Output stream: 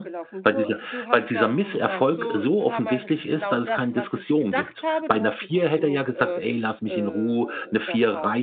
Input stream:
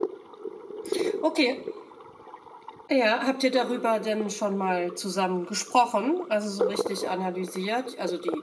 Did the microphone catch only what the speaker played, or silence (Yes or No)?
No